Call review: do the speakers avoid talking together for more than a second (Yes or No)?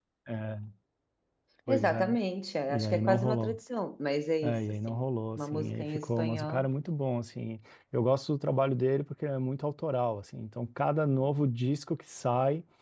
No